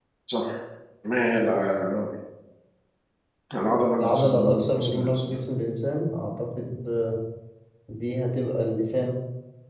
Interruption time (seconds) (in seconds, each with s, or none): 4.0 s